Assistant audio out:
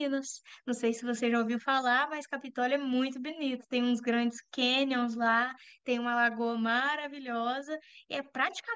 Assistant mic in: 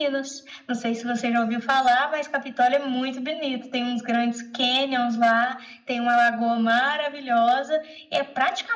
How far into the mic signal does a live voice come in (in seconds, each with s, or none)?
none